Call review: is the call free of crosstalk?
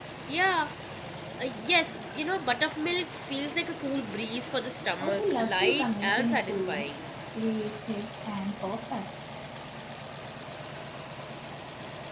No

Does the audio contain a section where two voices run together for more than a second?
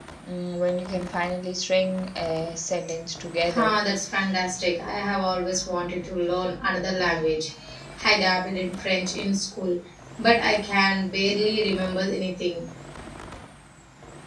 No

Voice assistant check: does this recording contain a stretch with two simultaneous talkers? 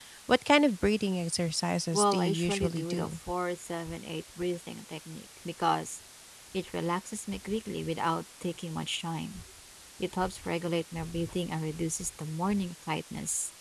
Yes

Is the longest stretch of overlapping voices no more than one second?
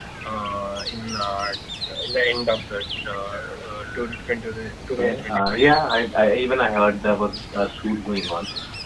No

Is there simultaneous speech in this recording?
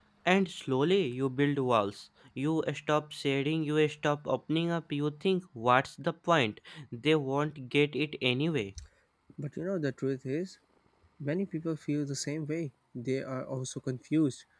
No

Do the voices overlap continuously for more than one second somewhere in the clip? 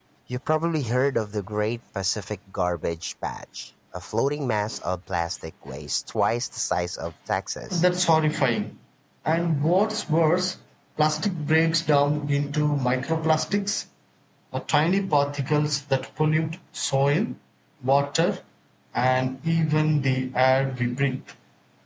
No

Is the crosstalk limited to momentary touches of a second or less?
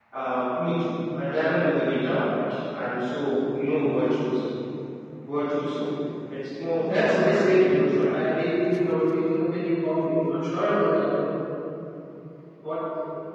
No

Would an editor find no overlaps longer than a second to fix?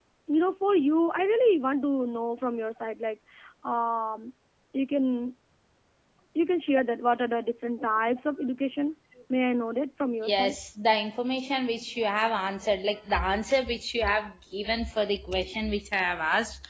Yes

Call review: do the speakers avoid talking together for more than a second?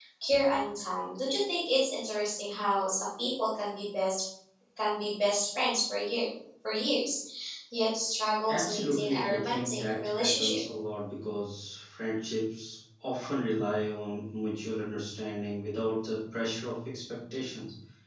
No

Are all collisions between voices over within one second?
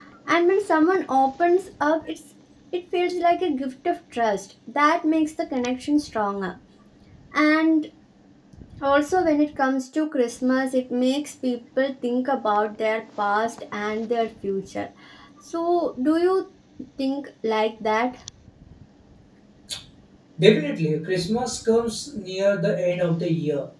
Yes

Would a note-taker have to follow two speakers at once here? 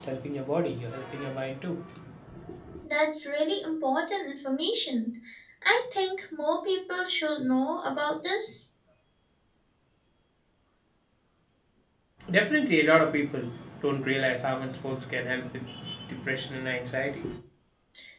No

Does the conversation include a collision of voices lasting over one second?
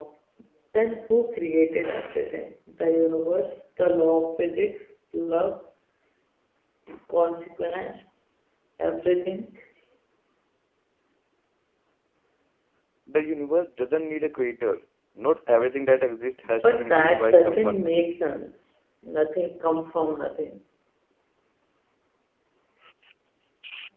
Yes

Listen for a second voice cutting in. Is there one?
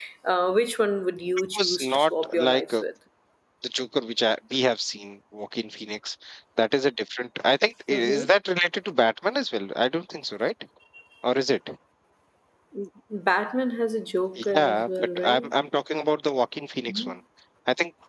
Yes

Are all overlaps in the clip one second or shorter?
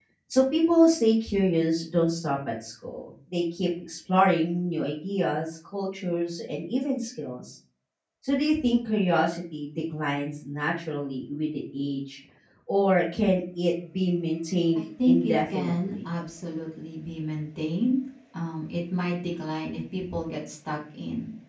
No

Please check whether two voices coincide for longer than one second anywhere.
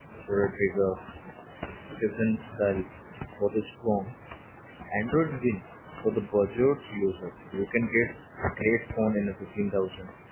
No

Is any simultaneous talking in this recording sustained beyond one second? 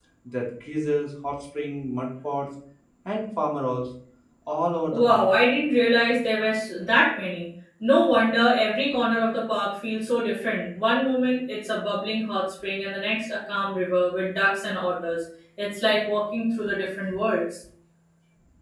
No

